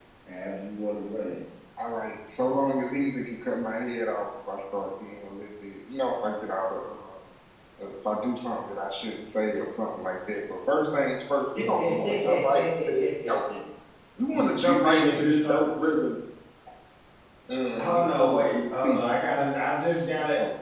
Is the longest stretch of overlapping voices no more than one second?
No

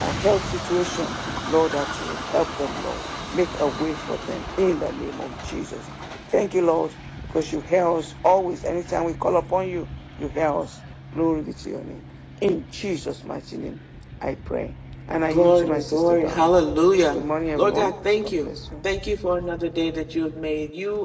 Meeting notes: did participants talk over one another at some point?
Yes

